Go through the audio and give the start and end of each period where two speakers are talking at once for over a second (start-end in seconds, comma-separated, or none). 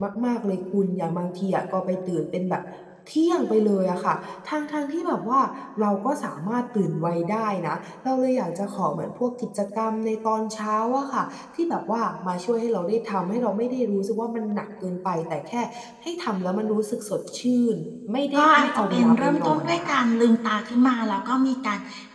18.3-19.9